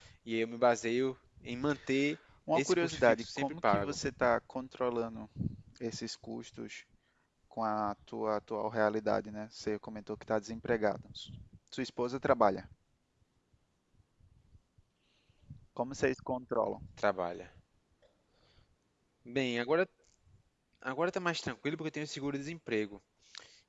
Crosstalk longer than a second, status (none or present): present